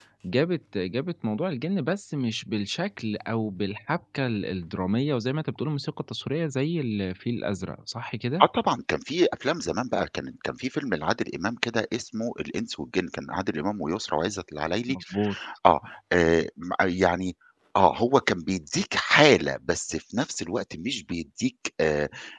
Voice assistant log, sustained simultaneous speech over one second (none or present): none